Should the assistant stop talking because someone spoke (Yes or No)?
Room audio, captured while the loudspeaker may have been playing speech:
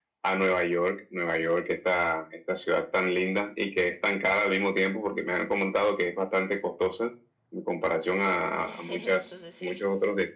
Yes